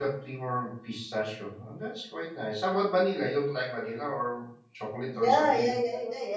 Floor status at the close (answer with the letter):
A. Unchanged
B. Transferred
B